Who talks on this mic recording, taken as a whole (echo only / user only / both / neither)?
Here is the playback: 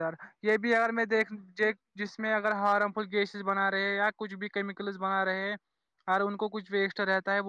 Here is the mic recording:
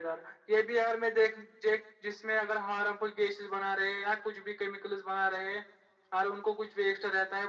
echo only